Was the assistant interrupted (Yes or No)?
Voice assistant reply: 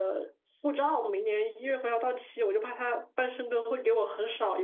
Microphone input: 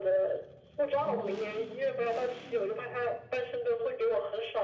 Yes